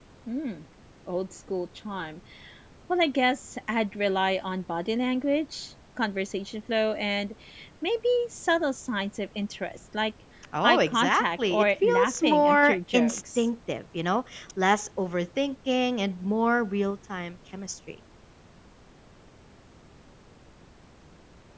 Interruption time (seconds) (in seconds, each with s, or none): 10.6 s